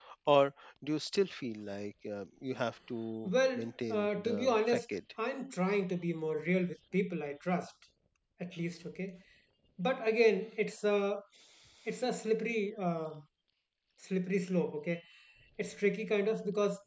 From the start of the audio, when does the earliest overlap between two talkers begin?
3.2 s

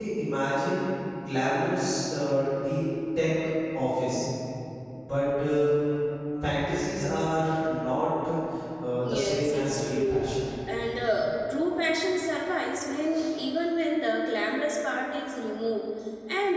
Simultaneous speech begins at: 9.0 s

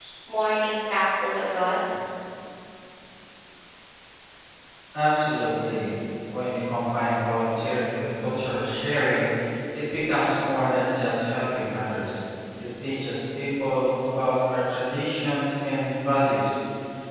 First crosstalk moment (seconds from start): none

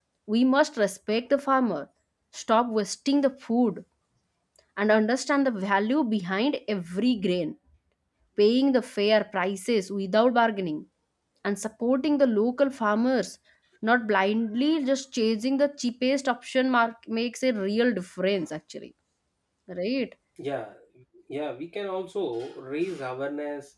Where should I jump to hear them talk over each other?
none

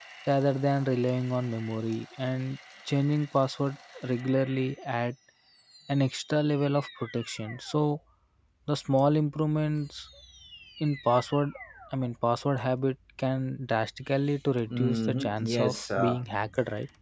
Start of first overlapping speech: 14.7 s

